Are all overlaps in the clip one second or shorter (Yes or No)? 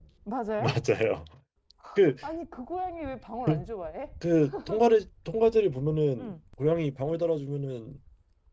Yes